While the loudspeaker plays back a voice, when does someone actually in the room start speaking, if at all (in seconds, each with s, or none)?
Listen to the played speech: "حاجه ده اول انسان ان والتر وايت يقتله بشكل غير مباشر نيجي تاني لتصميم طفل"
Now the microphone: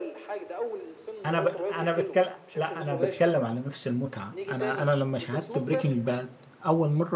1.2 s